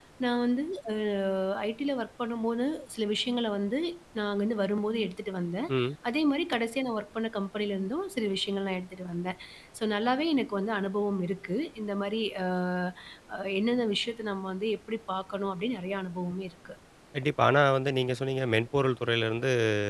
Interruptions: none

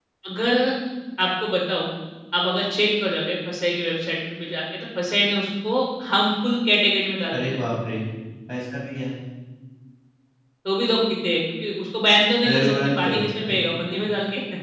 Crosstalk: present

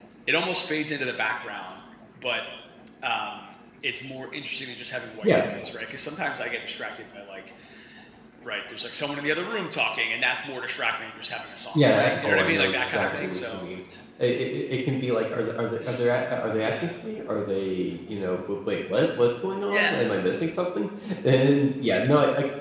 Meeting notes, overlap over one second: present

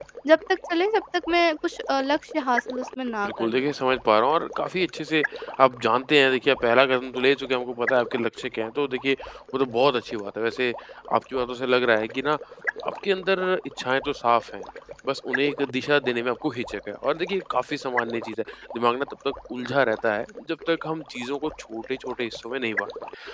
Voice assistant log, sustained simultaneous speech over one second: none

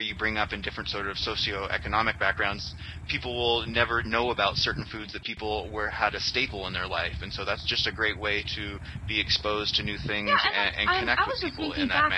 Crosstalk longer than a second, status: present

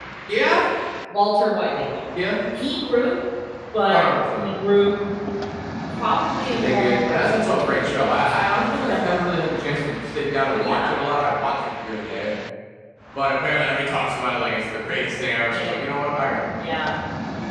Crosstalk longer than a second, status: present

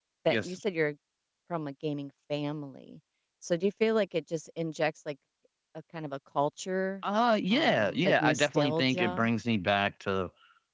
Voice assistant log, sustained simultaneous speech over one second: present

